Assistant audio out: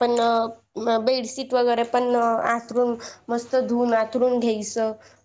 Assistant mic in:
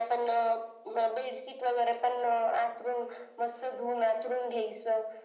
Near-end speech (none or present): none